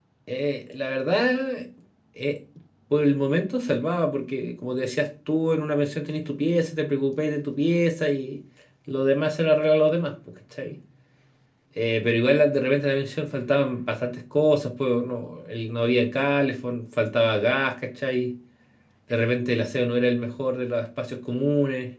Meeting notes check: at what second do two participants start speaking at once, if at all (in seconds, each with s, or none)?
none